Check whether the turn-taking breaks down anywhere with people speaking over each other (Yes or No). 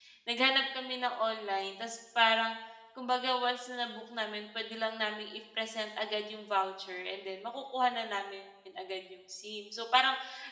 No